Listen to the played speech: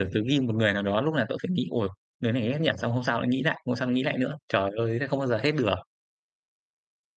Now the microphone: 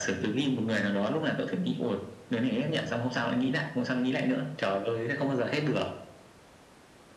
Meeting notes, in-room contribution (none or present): none